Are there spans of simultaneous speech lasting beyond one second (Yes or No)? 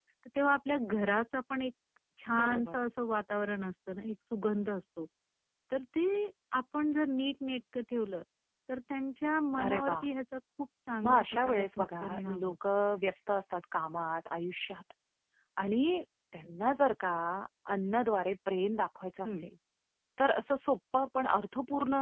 Yes